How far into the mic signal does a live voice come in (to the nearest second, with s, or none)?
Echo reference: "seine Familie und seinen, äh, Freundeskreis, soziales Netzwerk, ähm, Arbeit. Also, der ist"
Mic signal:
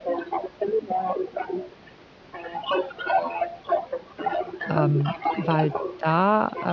5 s